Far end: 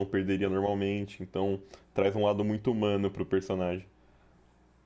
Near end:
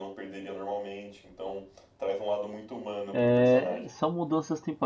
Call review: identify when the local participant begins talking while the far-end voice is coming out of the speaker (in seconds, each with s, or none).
3.1 s